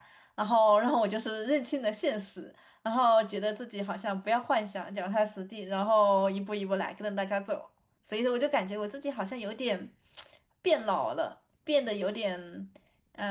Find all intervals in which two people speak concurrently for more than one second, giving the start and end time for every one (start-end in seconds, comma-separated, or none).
none